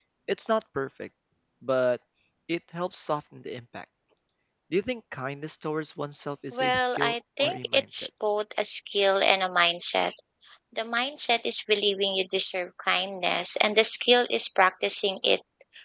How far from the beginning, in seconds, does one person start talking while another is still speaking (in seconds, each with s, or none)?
6.5 s